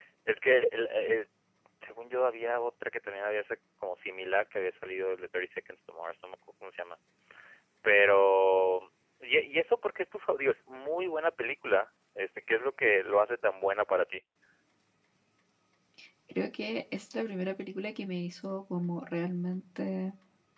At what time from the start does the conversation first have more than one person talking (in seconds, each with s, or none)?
none